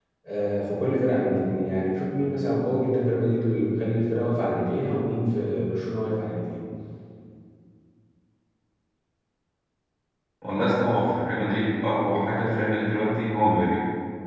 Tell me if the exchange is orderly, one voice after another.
Yes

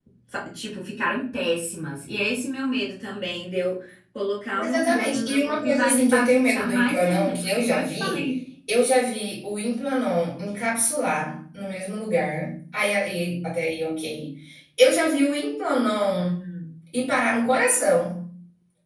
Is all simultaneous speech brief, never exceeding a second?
No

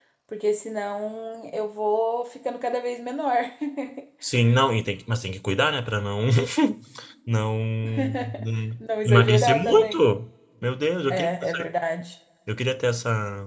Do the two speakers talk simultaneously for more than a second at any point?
Yes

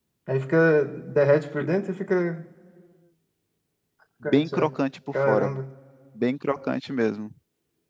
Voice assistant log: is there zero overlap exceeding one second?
Yes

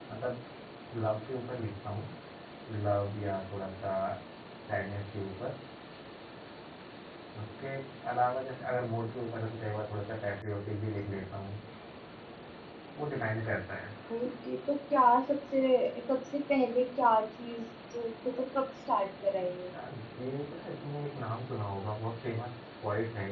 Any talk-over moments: No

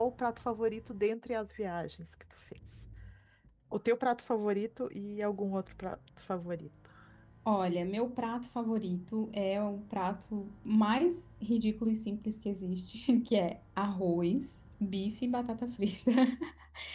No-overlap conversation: Yes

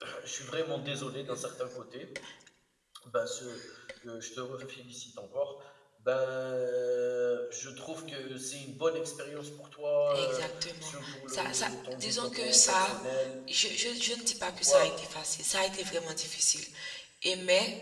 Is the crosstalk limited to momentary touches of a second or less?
No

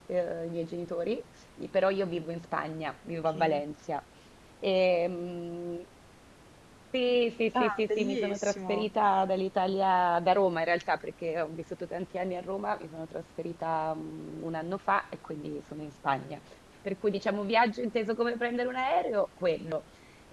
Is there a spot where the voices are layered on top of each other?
Yes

